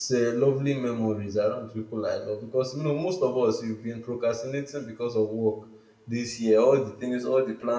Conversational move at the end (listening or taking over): listening